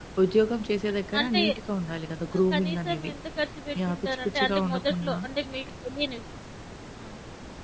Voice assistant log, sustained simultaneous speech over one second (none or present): present